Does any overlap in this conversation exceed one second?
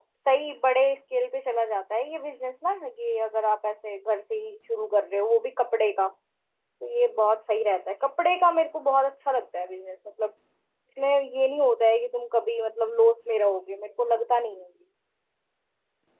No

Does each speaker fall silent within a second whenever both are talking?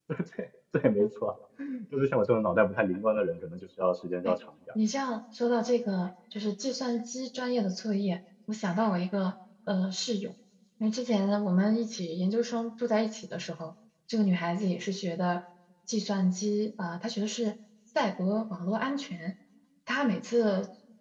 Yes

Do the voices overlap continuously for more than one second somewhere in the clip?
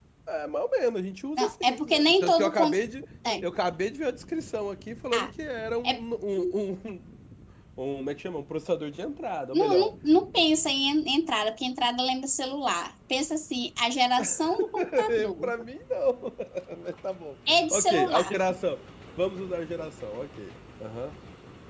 Yes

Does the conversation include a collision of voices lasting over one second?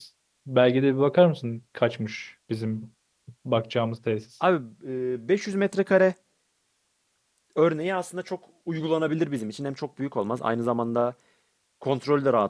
No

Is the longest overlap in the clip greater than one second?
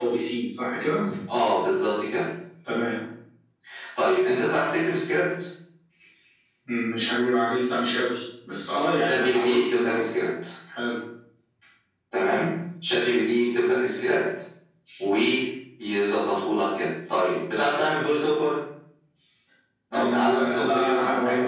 Yes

